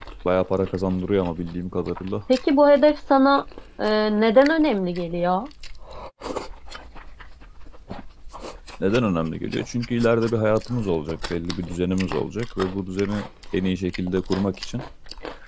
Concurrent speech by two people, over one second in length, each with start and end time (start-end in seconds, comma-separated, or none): none